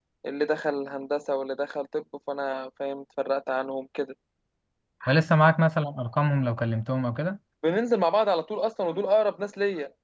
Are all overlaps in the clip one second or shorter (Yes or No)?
Yes